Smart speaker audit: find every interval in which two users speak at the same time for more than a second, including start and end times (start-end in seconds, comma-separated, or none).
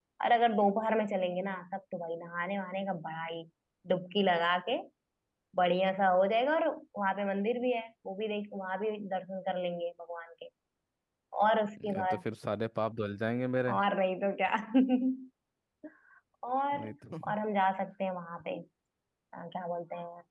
none